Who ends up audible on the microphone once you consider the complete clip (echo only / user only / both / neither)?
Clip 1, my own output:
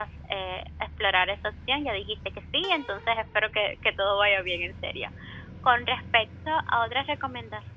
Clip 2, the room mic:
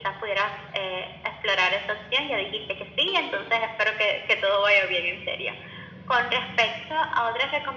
echo only